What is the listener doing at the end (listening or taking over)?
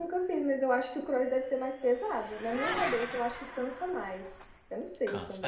taking over